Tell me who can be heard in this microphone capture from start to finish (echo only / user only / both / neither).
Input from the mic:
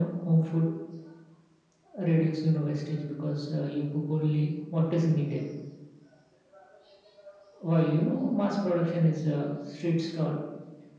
echo only